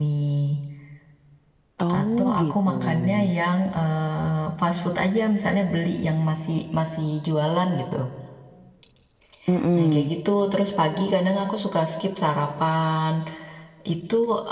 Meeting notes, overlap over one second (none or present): present